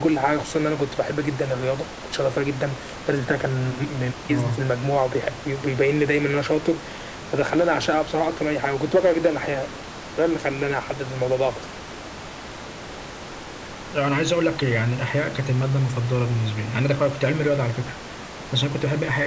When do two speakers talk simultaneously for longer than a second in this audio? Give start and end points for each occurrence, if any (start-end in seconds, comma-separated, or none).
none